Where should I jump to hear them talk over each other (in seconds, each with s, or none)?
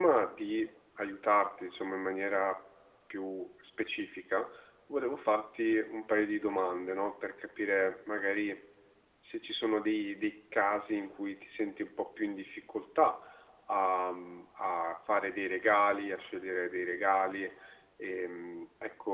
none